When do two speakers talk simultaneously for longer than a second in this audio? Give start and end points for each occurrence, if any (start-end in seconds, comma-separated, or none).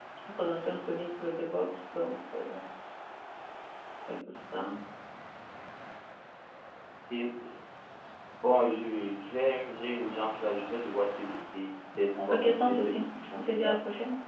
12.3-13.8